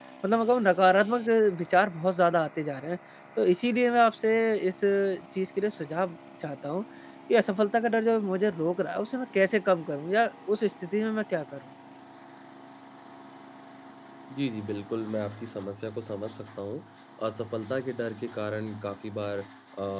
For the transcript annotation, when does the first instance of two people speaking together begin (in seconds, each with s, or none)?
none